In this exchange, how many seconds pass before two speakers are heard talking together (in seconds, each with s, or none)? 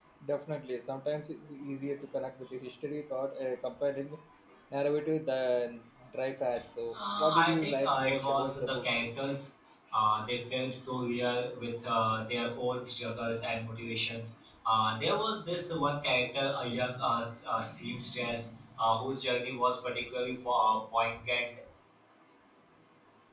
6.9 s